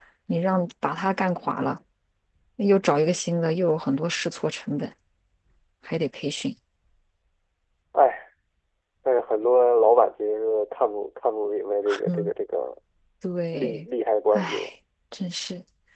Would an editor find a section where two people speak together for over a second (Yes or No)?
No